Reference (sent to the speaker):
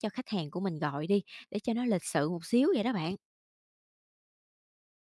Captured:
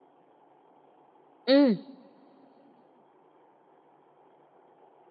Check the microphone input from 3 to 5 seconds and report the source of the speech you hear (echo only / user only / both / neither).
neither